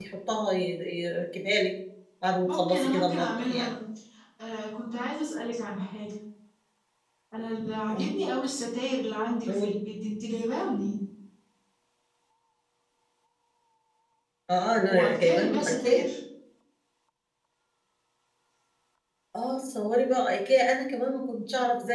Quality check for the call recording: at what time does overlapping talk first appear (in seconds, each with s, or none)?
2.5 s